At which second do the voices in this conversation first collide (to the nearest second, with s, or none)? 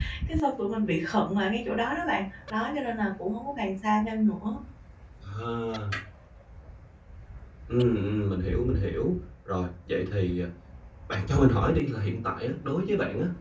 none